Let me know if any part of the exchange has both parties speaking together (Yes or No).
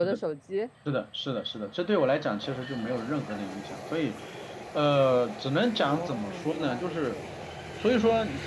Yes